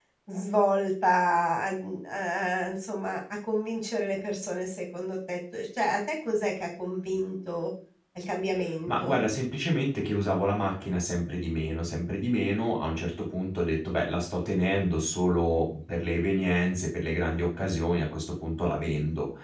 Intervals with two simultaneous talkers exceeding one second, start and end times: none

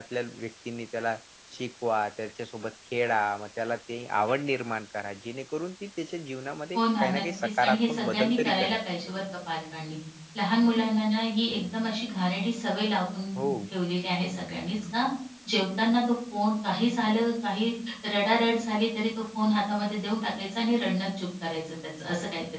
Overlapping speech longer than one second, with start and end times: 6.8-8.8

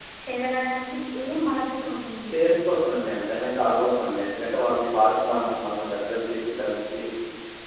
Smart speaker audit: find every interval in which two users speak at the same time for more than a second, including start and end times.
none

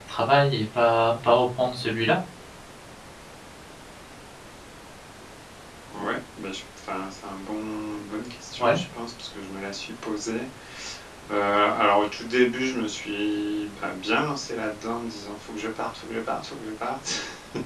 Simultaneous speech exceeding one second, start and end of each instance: none

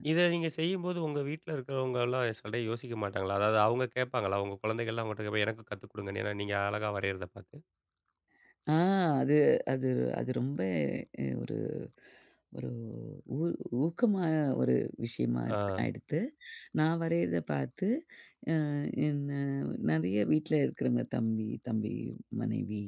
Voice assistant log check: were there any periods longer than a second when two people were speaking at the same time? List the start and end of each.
none

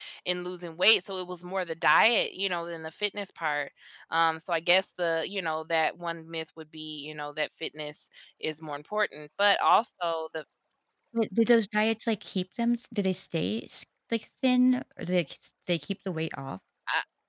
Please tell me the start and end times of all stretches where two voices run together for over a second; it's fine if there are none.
none

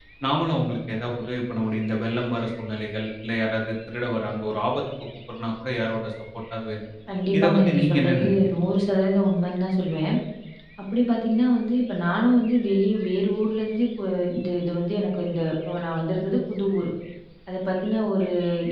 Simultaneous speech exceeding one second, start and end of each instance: 7.4-8.7

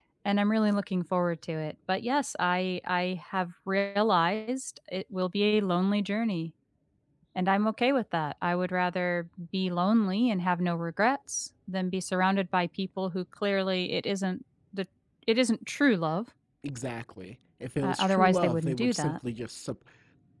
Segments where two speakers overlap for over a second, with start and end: 17.8-19.2

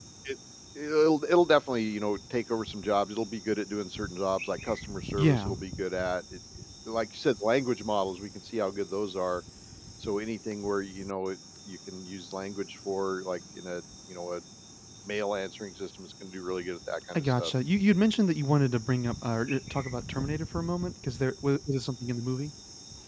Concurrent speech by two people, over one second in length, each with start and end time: none

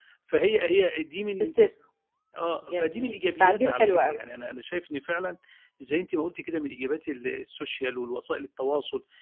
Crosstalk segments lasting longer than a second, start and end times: 2.7-4.2

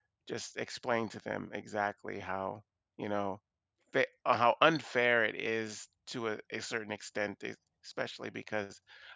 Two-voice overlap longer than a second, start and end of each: none

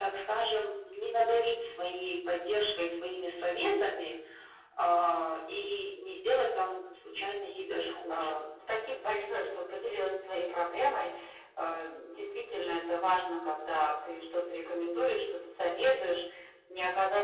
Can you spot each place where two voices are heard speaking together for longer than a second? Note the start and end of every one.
none

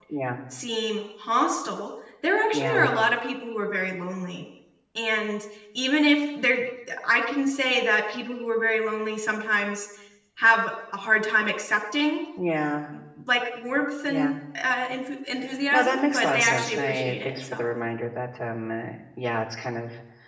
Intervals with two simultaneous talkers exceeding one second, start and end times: 15.7-17.7

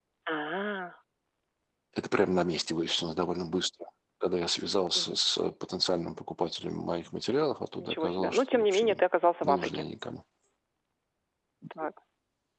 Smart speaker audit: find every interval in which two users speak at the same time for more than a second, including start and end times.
7.8-9.0

